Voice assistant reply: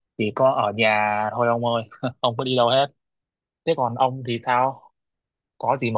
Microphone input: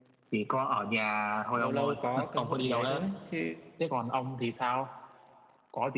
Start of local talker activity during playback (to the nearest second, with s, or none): 2 s